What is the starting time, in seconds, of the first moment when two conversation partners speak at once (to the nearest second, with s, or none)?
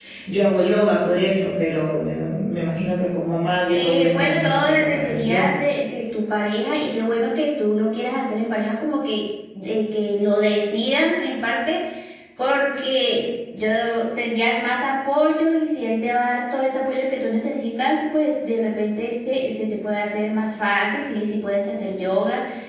4 s